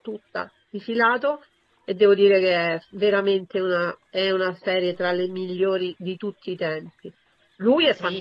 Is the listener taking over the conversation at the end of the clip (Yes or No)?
Yes